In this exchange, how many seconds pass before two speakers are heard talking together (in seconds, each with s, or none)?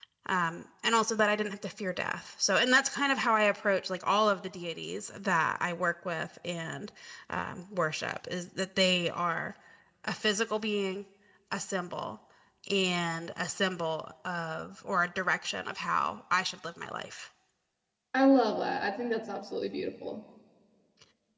none